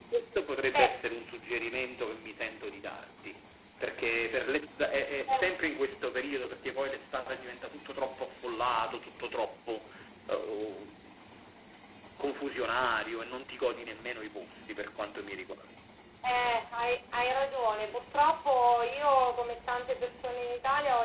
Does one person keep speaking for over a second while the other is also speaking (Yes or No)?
No